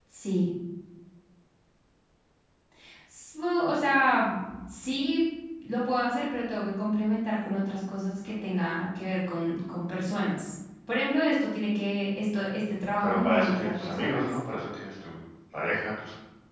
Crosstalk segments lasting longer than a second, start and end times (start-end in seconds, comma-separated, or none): 13.0-14.3